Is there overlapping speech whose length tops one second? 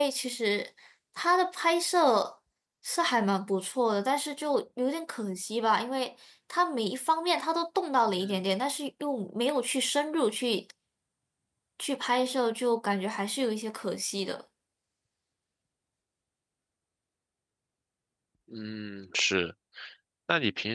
No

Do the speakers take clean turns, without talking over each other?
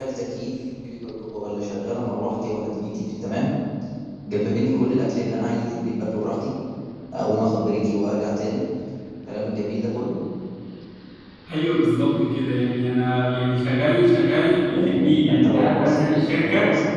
No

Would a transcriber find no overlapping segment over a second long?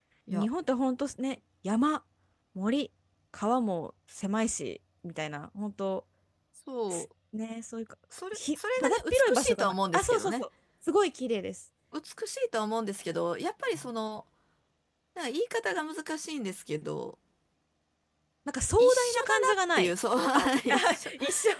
No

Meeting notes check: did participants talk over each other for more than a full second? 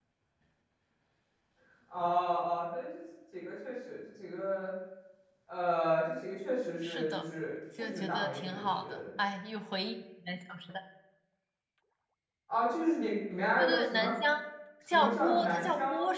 Yes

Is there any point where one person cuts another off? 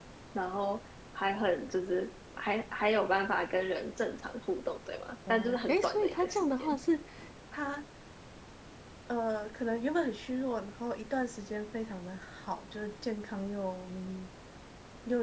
Yes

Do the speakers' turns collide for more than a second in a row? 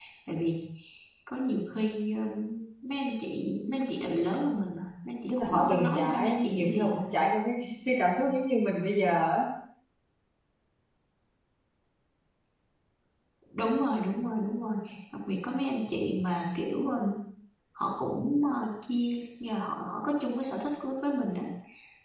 Yes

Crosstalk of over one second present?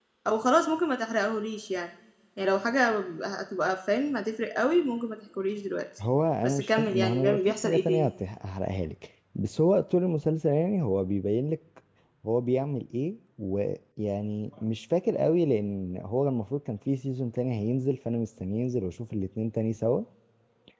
Yes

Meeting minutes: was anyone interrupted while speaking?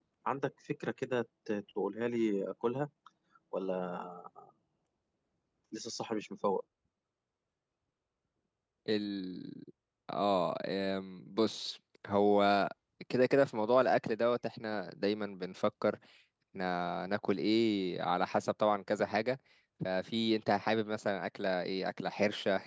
No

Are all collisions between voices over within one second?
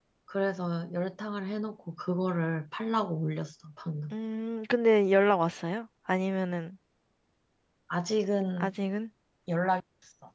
Yes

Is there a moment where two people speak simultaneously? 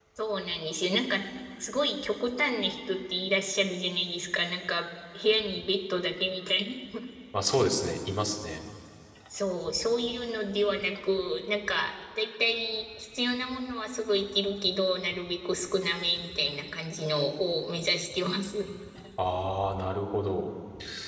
No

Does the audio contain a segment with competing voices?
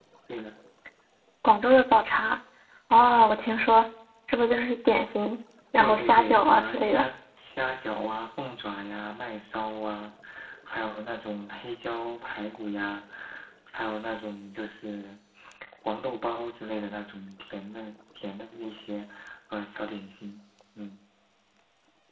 Yes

